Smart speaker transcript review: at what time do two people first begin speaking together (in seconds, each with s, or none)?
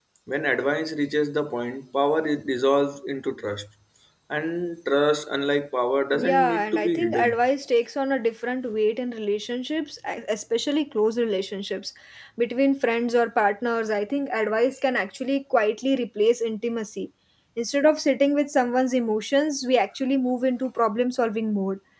6.1 s